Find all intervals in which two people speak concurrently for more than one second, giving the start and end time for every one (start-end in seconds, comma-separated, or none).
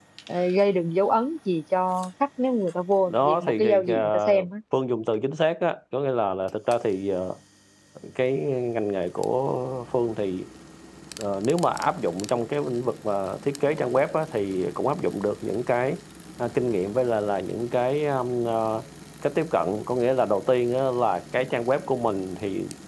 3.1-4.5